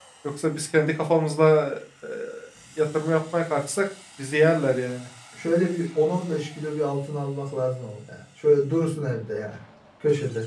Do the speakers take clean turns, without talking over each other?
Yes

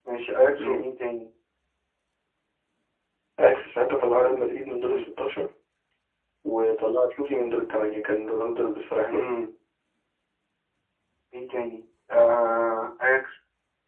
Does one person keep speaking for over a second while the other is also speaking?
No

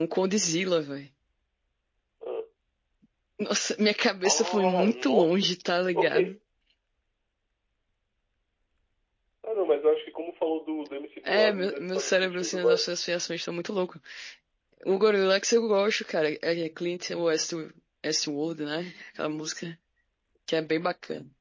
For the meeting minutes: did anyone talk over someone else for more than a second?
Yes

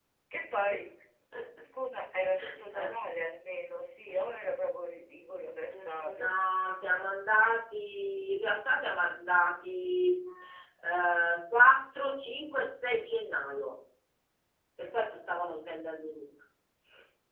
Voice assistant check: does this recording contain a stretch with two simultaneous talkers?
Yes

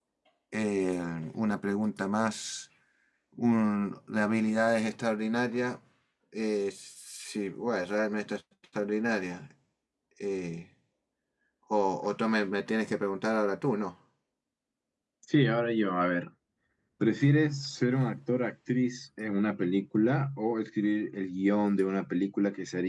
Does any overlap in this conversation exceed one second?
No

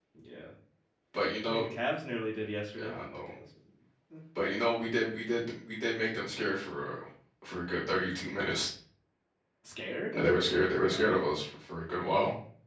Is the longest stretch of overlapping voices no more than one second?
Yes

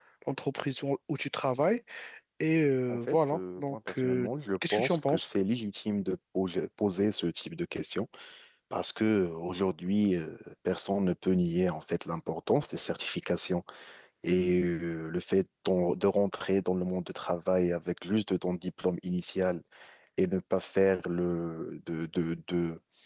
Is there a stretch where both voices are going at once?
Yes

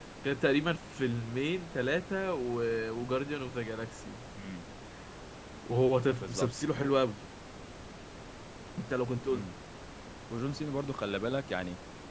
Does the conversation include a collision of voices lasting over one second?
No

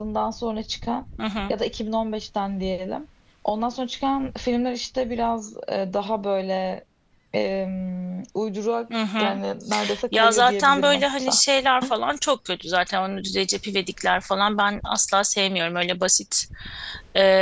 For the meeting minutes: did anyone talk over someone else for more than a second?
Yes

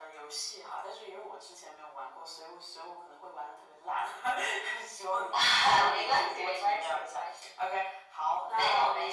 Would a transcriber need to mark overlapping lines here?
Yes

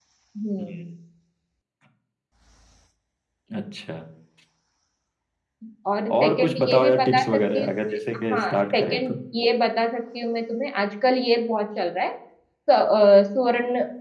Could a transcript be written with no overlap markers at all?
No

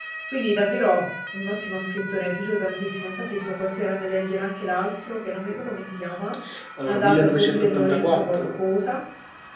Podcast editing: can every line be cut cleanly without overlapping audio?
No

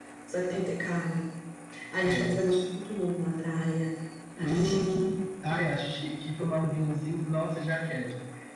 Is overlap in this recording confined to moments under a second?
Yes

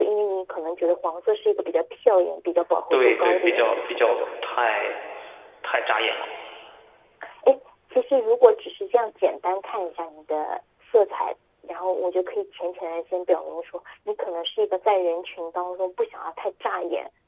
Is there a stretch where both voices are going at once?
Yes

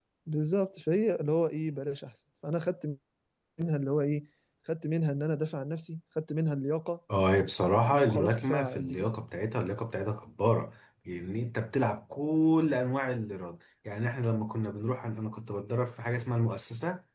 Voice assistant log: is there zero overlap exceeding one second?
No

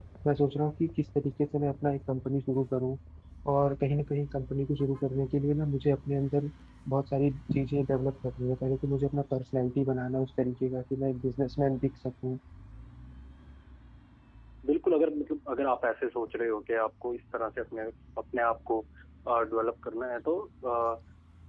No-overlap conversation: Yes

